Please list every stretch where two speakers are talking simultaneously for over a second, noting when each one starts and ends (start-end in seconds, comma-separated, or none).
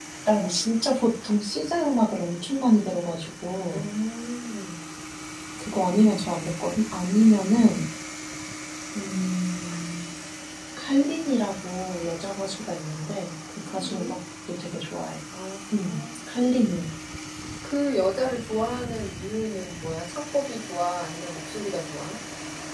none